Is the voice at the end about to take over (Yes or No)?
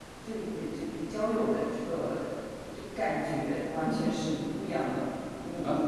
Yes